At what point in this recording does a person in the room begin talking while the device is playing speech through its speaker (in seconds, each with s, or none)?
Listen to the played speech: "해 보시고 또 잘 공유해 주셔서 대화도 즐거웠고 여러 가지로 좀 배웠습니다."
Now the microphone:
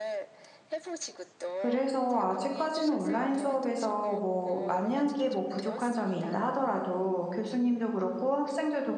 1.6 s